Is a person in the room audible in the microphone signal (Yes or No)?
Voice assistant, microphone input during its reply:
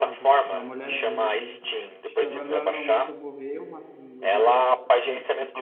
Yes